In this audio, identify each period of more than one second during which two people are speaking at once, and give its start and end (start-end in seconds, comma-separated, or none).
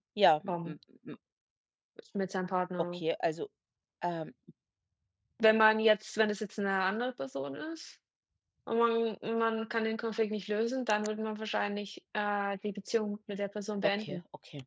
none